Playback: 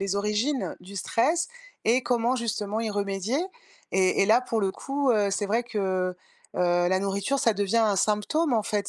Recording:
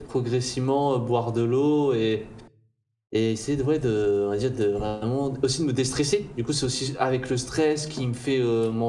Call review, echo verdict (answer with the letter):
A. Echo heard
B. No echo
B